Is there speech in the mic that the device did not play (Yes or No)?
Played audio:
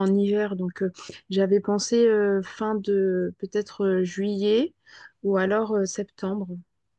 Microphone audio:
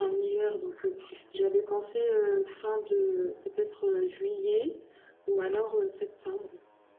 No